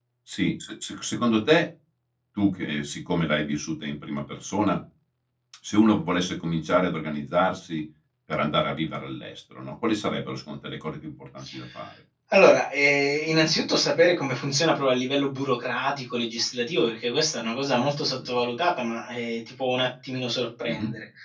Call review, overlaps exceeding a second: none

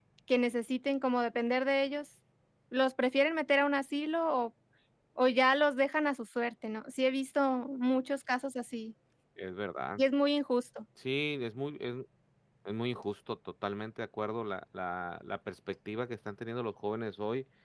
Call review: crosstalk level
none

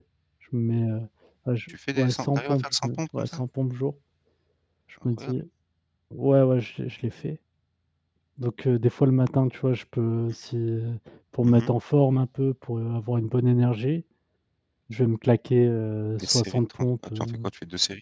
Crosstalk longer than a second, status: present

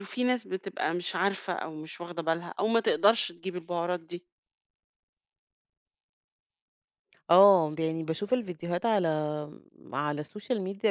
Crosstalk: none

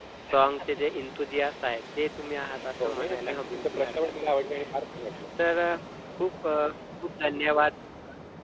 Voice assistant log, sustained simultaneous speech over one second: present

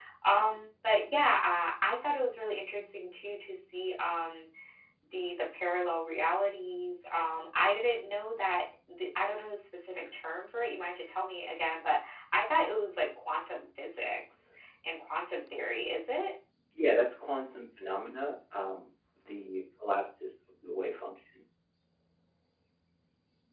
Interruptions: none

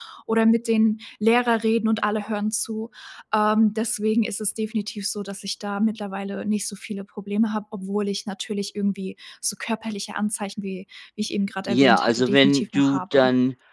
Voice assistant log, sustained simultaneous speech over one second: present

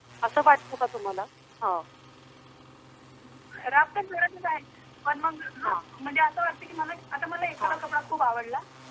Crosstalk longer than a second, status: none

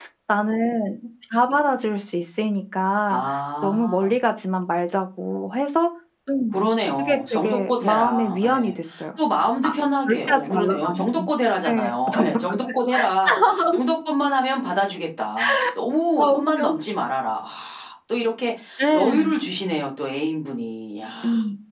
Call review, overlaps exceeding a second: present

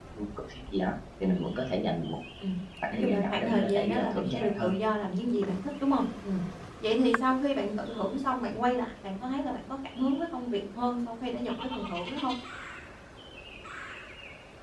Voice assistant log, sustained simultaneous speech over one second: present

